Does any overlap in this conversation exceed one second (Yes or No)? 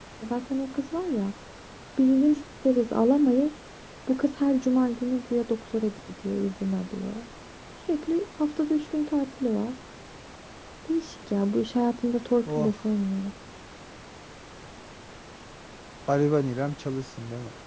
No